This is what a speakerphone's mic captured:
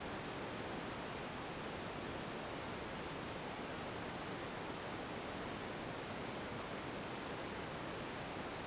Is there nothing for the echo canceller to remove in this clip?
Yes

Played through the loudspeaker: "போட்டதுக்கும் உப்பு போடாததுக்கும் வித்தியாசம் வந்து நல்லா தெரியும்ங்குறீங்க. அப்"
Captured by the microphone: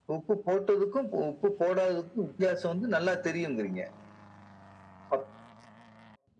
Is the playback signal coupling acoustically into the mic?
Yes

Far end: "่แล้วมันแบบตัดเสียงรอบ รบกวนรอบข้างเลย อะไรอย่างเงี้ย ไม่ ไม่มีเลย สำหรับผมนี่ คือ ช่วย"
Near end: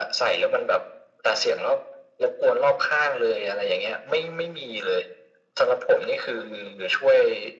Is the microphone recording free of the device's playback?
No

